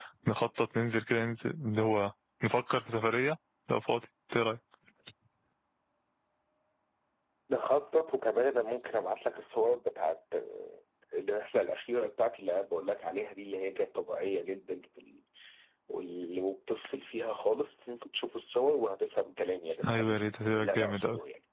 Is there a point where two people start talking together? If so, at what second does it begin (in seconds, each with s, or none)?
19.8 s